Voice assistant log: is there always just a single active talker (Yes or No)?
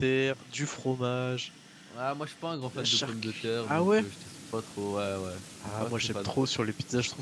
No